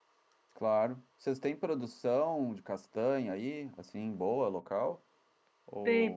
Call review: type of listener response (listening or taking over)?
taking over